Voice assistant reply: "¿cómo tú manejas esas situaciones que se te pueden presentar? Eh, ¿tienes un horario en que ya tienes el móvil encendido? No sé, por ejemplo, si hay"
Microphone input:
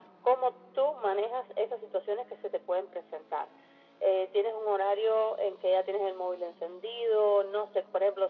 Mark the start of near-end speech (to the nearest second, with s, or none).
none